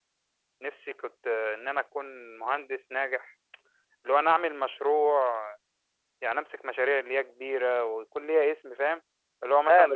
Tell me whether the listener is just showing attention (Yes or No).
No